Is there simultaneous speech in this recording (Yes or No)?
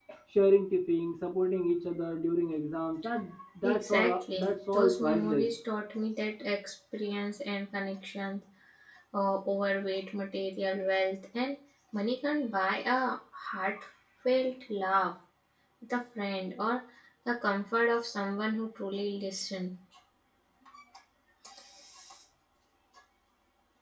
Yes